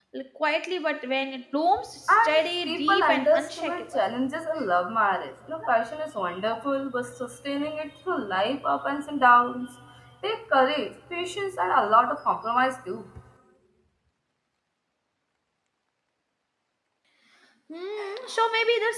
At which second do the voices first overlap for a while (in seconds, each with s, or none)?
2.1 s